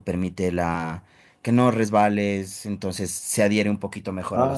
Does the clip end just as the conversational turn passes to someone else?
Yes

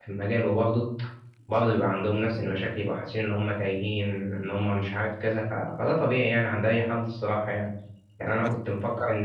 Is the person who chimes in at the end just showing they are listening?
Yes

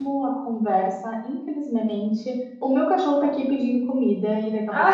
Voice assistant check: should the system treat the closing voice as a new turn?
No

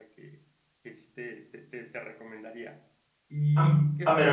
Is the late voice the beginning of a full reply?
Yes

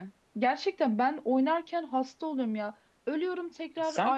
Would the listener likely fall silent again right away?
Yes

